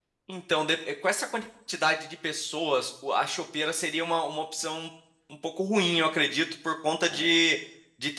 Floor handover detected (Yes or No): No